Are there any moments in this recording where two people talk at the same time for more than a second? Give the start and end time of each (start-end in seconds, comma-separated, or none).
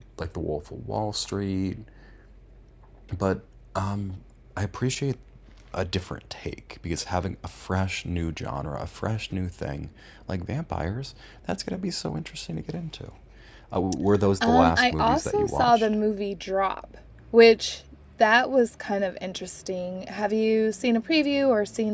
14.4-15.9